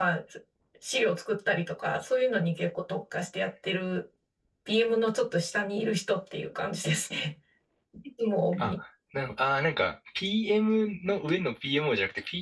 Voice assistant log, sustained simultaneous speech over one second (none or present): none